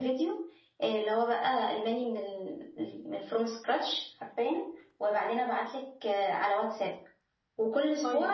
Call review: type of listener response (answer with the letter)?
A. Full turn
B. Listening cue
B